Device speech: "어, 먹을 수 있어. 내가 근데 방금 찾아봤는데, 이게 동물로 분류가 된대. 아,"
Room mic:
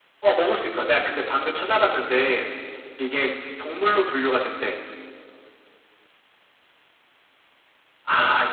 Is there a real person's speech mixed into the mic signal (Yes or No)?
No